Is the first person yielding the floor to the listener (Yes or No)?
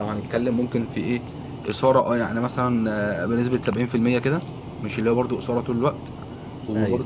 No